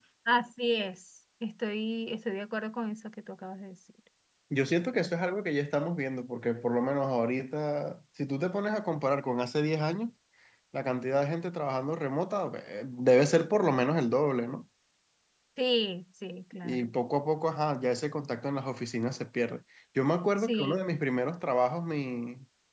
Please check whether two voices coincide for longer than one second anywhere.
No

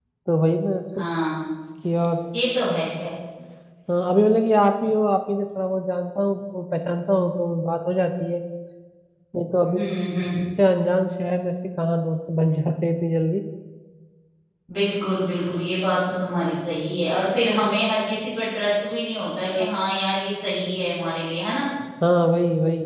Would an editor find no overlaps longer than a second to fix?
Yes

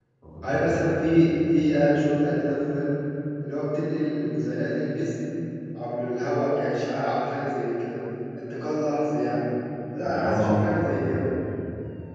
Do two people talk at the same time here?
Yes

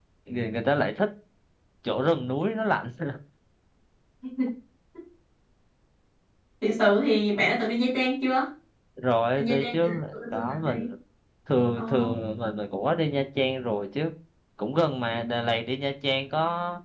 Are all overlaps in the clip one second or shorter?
No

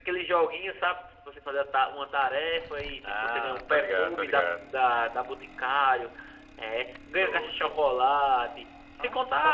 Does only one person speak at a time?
No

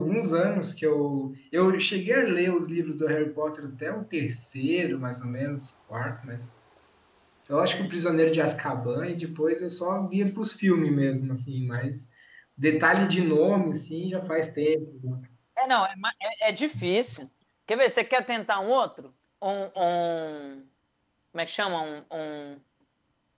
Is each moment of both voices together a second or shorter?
Yes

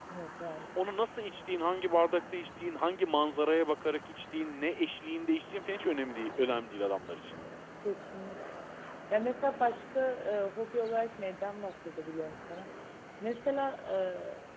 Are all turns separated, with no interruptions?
Yes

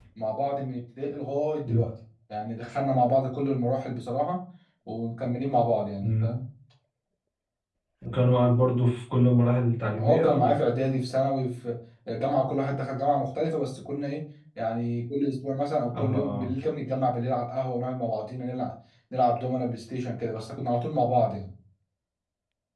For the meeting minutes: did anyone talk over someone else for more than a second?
No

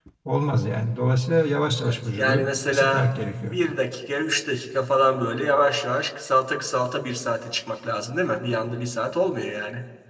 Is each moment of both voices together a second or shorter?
No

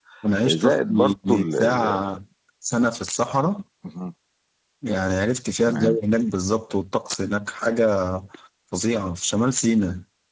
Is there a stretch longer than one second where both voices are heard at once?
Yes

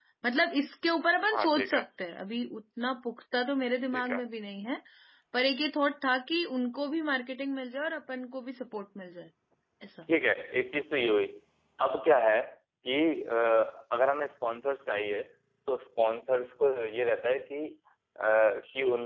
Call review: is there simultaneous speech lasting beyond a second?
No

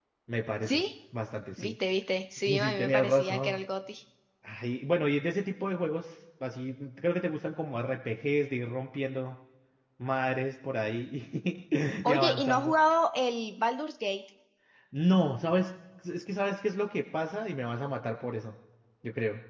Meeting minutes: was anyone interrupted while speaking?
Yes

